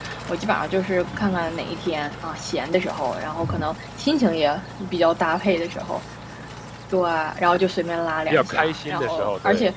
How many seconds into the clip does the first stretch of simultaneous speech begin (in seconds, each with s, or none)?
8.3 s